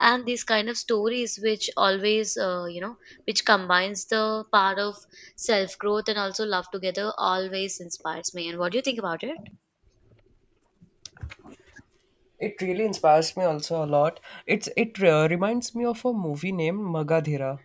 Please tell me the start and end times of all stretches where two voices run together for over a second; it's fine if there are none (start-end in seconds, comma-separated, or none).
none